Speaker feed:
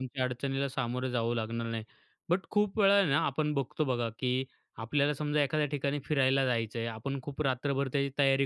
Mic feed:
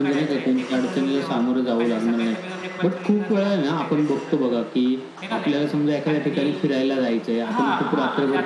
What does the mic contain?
both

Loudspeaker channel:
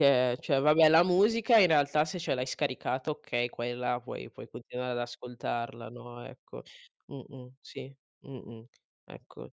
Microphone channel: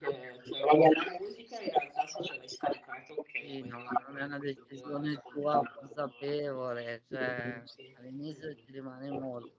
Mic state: both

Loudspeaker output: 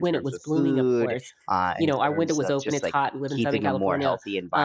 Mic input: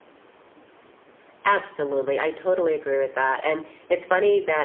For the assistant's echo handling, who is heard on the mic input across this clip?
user only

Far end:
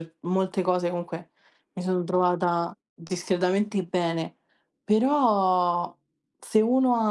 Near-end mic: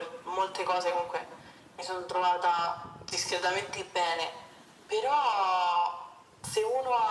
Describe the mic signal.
echo only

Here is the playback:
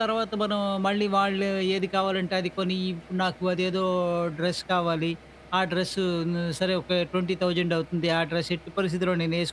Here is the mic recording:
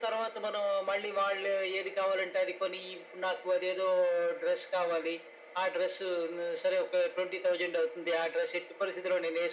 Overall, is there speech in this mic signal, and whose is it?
echo only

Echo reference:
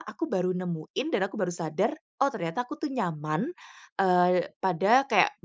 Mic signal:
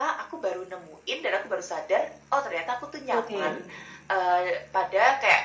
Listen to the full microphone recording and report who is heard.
both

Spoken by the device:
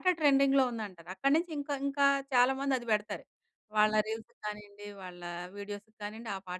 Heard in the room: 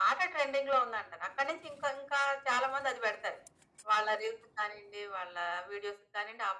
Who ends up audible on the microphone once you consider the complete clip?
echo only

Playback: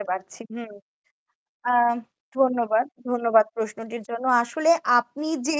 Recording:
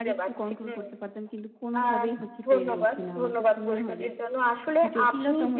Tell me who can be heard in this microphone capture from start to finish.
both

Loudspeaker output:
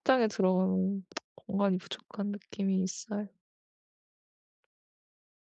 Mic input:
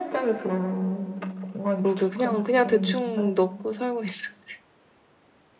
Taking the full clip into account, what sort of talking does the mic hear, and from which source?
both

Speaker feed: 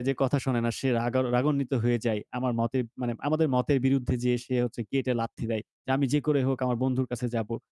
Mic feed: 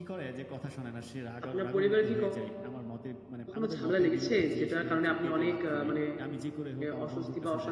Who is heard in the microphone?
both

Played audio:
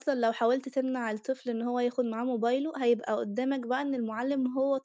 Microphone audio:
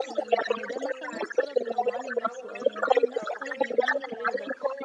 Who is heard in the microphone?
both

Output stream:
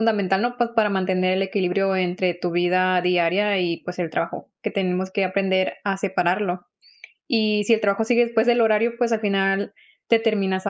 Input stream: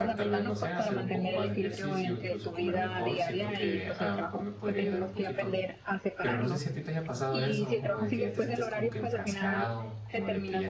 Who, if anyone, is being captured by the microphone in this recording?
both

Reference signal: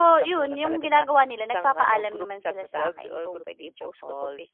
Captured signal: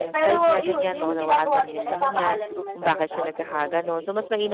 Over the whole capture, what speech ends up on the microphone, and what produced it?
both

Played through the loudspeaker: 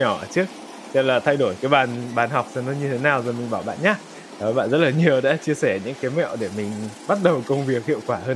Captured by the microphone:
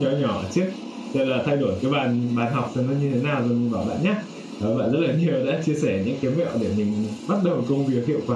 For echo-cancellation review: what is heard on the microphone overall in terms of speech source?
echo only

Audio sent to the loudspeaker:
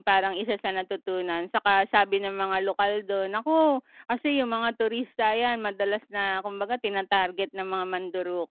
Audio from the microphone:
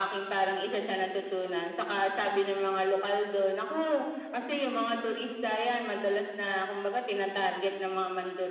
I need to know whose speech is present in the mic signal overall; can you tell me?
echo only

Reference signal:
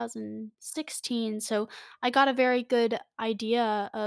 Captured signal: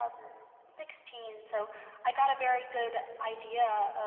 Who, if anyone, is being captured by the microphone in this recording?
echo only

